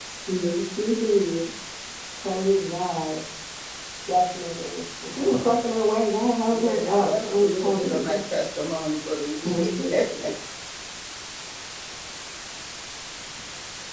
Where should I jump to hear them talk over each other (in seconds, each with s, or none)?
6.5 s